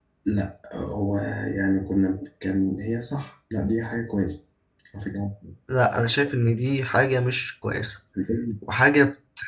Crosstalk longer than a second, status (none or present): none